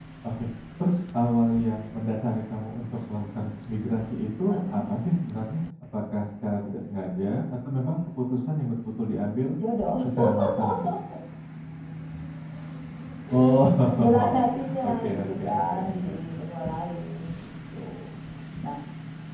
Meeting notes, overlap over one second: present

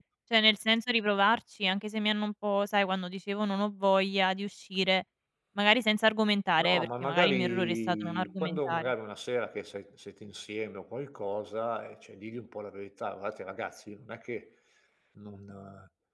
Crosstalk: present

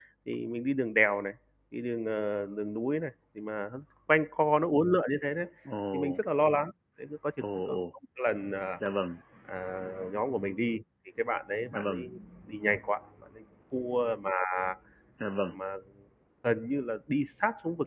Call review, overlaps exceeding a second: none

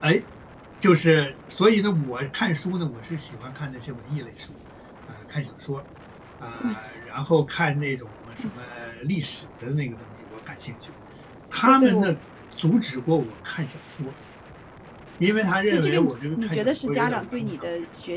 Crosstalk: present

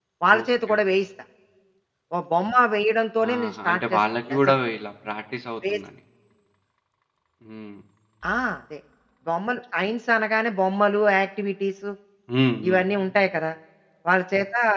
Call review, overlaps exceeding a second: present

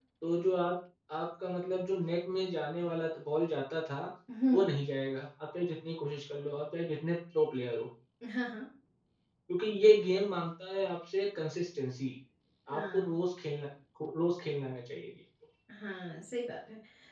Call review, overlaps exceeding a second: none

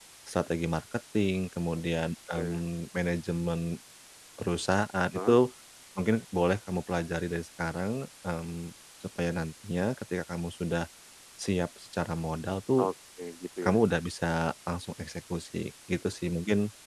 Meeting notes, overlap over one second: none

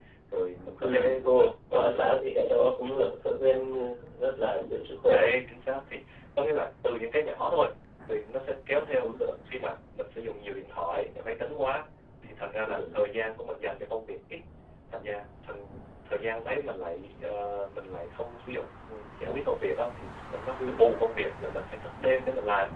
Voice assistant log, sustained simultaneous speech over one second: present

